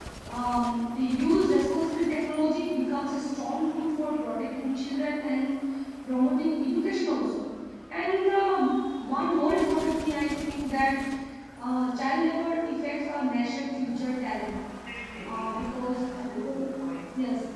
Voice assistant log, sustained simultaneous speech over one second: present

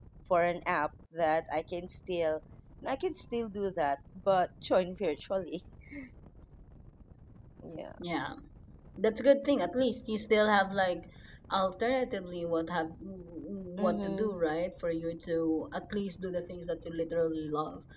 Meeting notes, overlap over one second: none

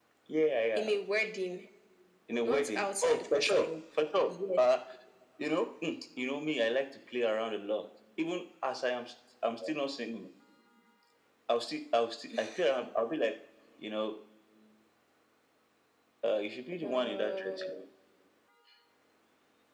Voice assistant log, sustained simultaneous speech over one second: present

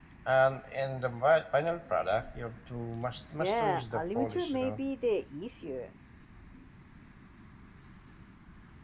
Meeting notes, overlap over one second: present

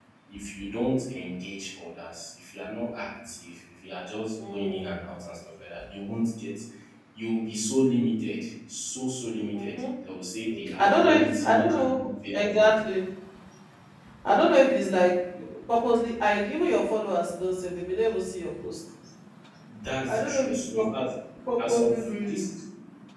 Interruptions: present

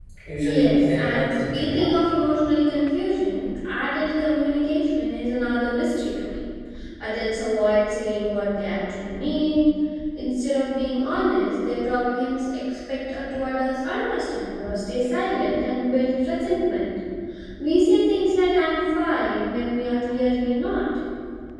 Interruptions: present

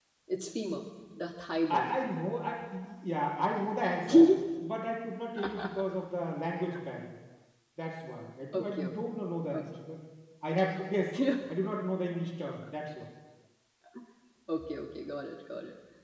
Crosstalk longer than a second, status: none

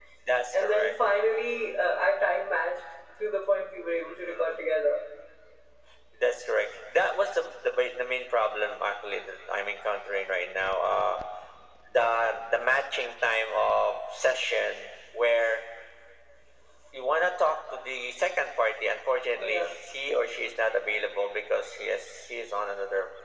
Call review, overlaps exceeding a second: none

